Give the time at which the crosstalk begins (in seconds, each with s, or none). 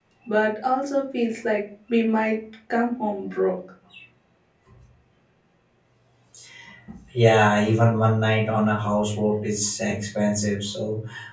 none